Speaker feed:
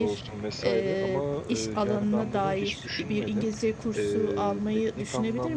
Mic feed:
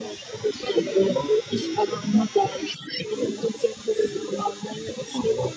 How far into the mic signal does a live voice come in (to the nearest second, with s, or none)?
none